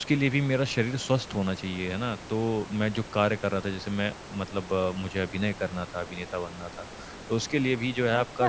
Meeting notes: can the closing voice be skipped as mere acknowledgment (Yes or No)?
No